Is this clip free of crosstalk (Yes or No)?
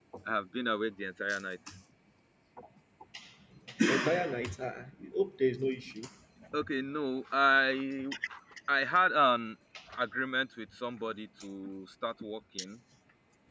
Yes